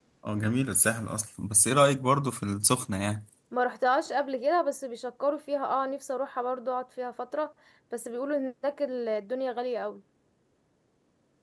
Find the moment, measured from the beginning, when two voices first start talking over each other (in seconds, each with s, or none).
none